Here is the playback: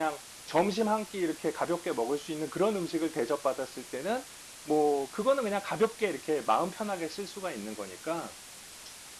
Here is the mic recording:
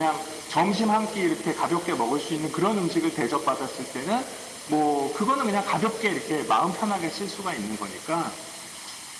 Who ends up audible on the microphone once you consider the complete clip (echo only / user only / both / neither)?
echo only